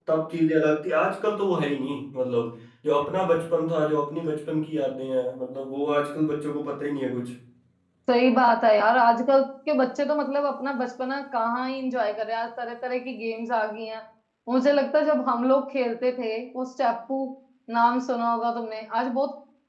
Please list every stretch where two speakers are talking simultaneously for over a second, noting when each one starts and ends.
none

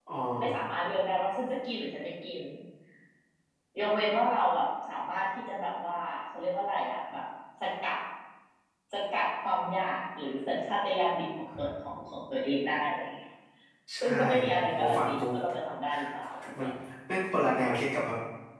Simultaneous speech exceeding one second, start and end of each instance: 14.0-15.3

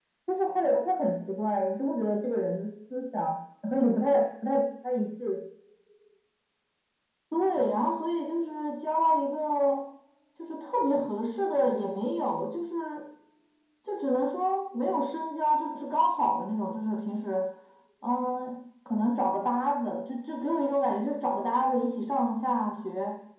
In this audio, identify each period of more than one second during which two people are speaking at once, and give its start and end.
none

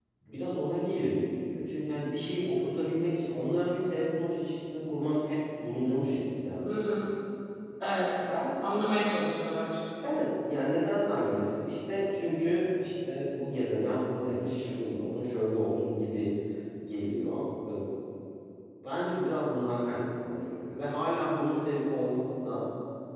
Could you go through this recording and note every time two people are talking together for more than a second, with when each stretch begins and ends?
none

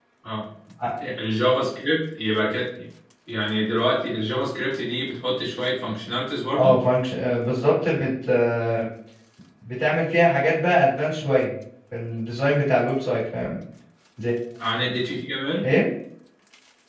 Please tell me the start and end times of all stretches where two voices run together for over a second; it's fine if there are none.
none

